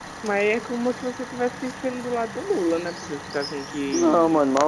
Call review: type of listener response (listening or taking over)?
taking over